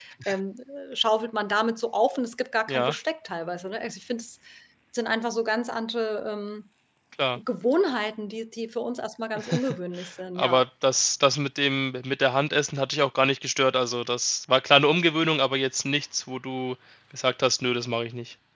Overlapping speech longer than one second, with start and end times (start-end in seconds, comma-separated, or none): none